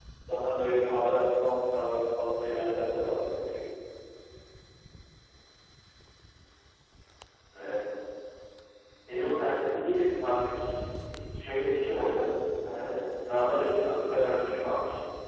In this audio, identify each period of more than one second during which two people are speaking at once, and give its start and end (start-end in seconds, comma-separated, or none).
none